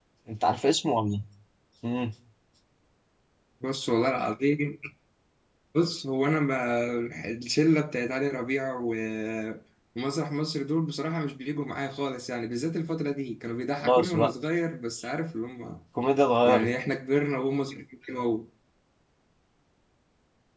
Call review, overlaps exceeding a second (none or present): none